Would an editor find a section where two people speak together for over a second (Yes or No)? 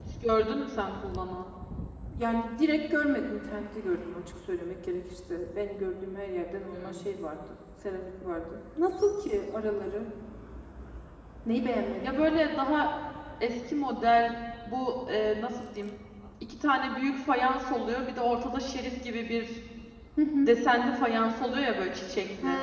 No